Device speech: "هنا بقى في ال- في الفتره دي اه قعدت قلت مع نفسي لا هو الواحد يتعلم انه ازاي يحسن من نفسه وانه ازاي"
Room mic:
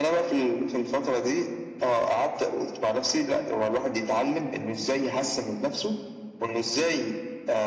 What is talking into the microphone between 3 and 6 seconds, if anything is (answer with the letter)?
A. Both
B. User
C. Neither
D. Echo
D